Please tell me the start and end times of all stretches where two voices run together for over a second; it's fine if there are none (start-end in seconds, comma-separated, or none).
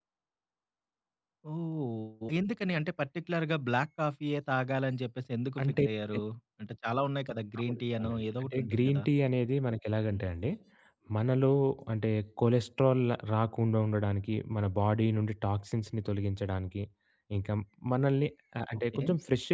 7.6-9.0